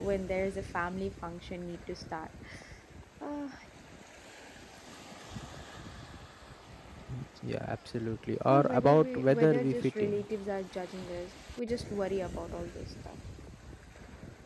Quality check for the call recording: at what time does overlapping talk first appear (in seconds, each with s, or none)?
8.5 s